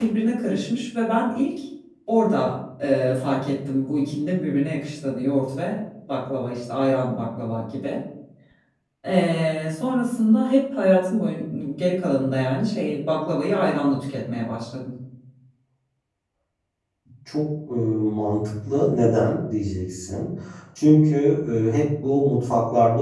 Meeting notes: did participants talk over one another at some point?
No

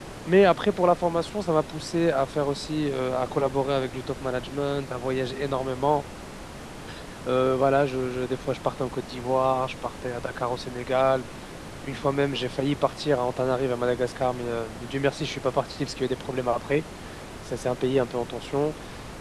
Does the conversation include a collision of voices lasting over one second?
No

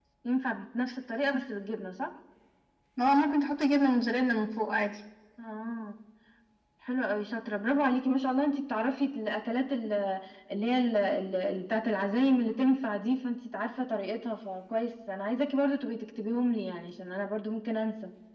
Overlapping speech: No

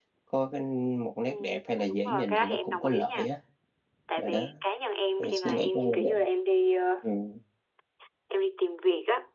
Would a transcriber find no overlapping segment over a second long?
No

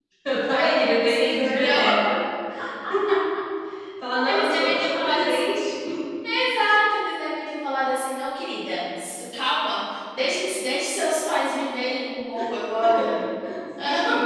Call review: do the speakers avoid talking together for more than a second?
No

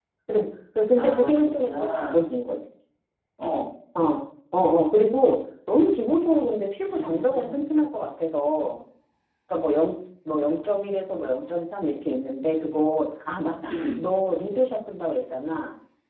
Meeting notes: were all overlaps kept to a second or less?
No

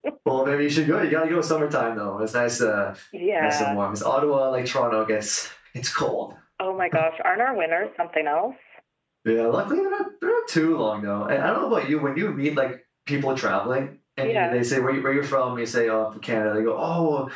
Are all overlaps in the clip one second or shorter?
Yes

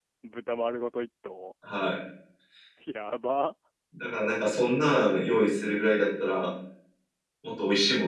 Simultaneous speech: No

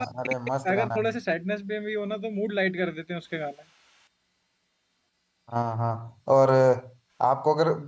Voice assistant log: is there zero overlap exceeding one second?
Yes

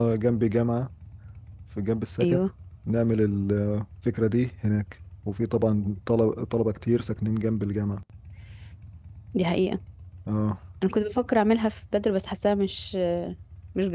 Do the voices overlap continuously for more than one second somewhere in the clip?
No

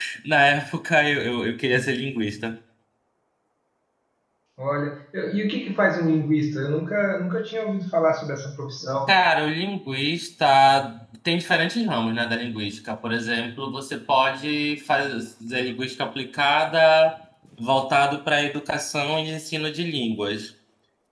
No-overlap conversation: Yes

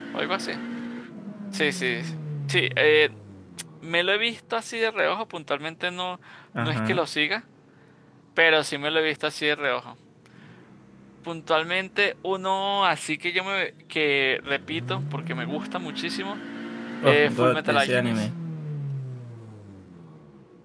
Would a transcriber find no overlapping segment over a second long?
No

